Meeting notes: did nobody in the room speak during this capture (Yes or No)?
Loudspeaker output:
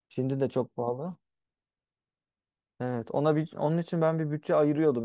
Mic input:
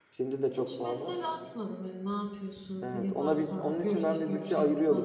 No